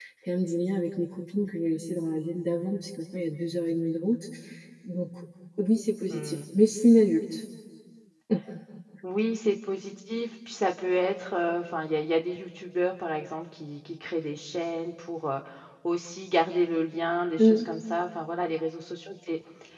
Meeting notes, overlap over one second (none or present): none